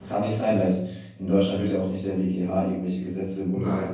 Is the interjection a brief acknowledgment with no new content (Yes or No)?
No